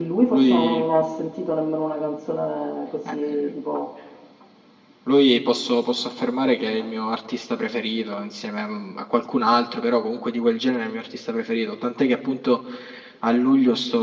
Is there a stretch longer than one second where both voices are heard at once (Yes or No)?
No